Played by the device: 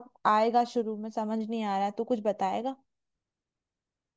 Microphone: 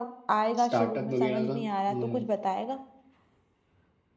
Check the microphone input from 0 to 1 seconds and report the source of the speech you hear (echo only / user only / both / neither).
both